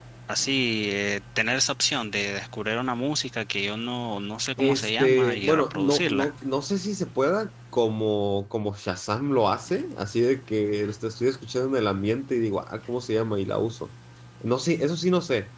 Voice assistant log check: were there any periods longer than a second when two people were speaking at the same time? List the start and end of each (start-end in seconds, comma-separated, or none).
4.6-6.3